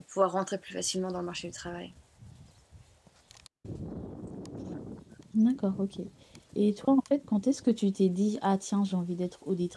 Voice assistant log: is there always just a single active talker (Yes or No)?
Yes